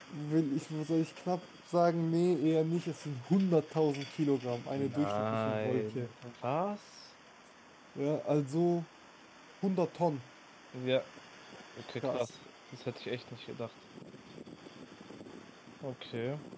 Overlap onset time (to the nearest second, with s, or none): 5 s